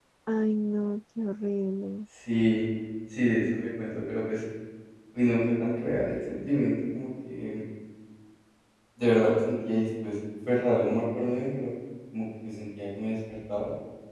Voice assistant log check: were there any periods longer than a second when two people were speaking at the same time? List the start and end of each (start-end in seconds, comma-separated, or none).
none